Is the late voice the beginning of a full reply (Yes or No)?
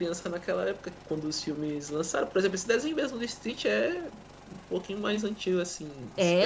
Yes